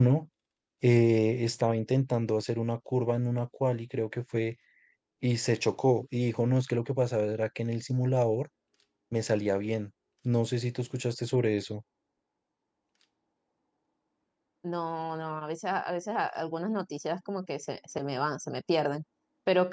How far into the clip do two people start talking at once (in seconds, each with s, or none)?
none